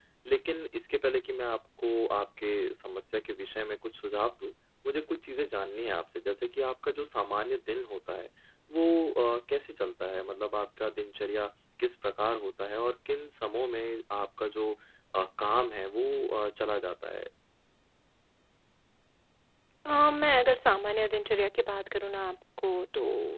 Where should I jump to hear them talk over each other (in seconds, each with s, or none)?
none